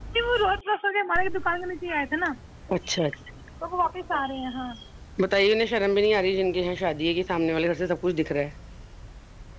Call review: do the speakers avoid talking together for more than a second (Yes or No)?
Yes